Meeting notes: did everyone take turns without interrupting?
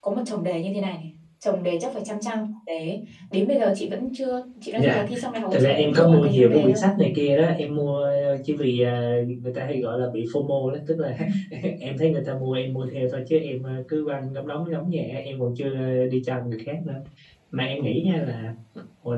No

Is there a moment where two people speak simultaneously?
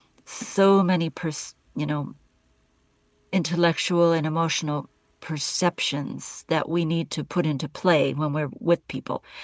No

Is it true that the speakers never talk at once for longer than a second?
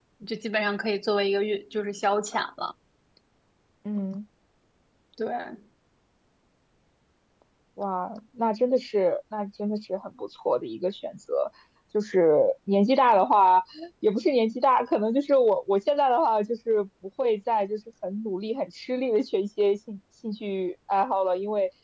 Yes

